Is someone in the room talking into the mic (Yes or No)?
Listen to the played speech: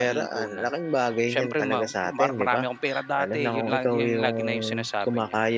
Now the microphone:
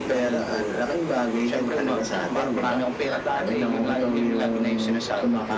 No